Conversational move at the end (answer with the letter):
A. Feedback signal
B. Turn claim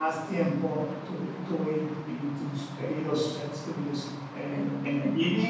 A